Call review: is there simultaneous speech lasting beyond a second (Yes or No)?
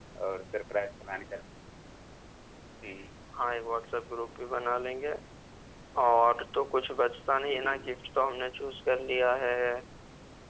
No